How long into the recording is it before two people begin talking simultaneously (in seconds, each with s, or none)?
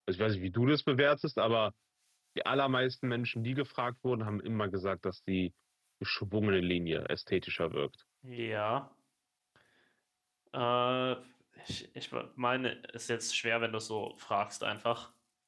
none